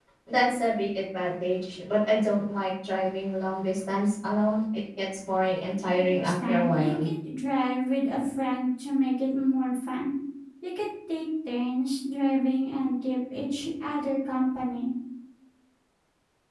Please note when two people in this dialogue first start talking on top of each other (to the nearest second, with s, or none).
6 s